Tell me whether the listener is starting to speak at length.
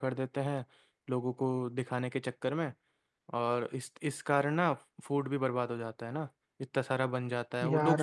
No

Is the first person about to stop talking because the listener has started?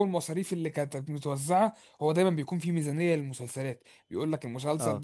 No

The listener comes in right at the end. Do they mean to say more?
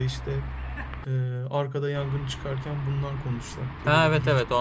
Yes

